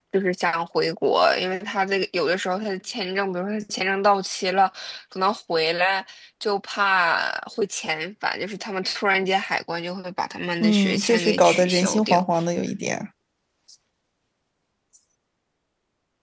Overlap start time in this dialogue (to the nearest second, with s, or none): 11 s